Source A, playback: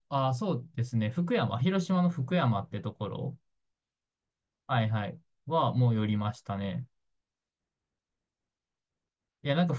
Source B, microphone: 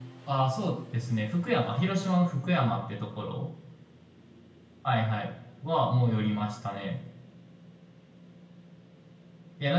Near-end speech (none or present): none